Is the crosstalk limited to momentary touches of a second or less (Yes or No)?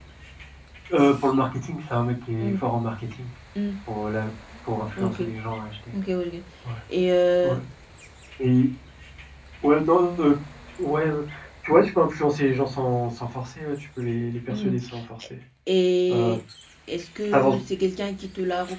Yes